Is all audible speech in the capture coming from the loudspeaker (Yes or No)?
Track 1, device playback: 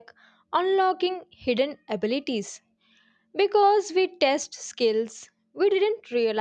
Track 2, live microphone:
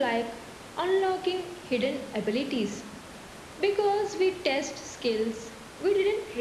Yes